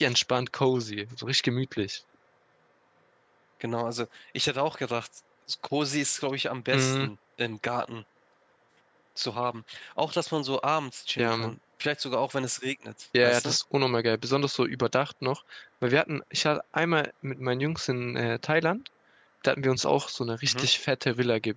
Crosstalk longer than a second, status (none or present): none